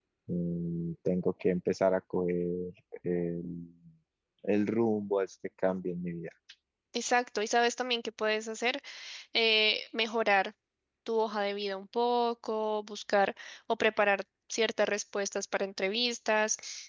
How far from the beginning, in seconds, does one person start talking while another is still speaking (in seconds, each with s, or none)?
none